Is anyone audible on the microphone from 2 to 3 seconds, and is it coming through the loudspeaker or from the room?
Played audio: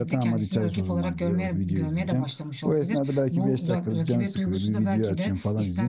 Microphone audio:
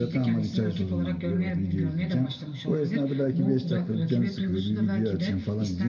echo only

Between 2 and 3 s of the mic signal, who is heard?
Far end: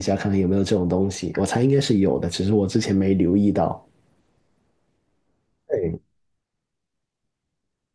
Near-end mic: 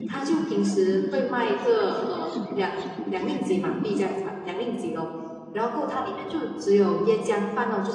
both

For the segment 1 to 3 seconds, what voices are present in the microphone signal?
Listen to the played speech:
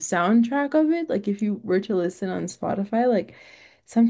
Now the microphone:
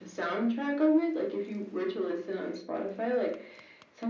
echo only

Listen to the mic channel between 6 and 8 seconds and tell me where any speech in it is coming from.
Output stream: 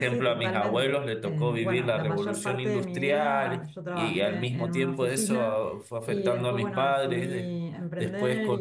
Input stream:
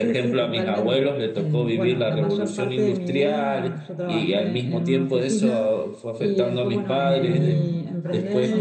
both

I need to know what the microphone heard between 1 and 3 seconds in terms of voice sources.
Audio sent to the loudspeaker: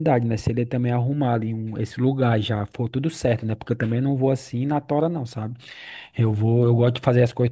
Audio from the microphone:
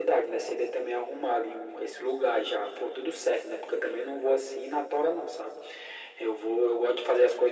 echo only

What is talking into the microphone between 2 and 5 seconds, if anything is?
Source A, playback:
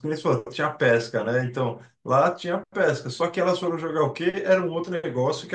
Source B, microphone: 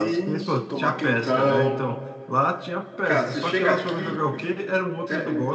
both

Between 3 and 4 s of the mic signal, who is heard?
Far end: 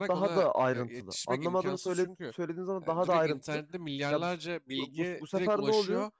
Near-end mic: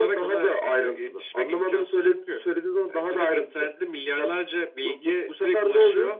echo only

